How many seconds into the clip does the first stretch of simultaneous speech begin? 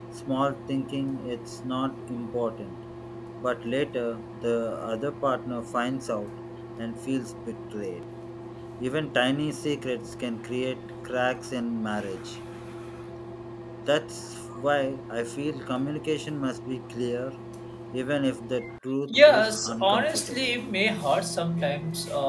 19.1 s

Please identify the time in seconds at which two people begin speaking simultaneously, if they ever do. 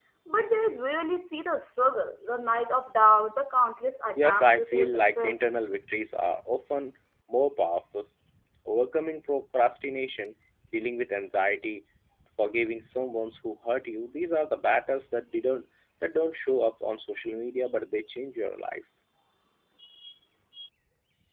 4.2 s

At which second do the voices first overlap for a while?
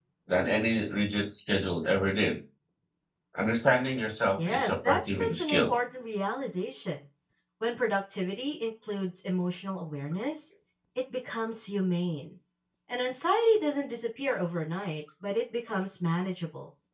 4.4 s

